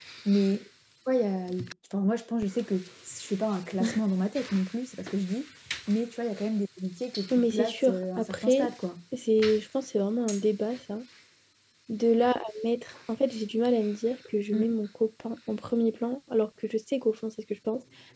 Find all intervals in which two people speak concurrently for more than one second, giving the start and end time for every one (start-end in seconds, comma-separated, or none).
7.3-8.7